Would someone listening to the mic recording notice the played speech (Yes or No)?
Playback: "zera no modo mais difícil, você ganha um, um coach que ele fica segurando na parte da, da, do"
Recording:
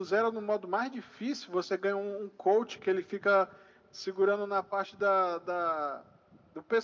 Yes